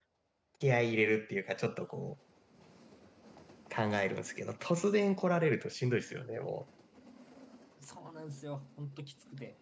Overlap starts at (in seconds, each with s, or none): none